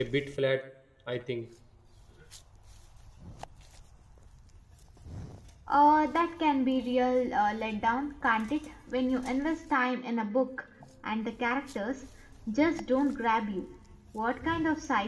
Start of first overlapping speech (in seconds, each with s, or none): none